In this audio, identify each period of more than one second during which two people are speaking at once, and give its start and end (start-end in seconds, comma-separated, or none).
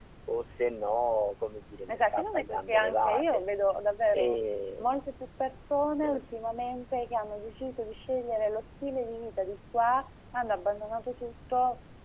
1.9-3.4